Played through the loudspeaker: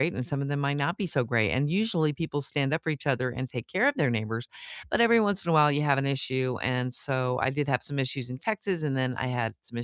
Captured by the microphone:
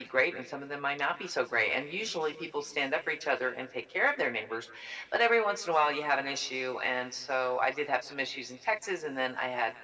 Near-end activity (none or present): none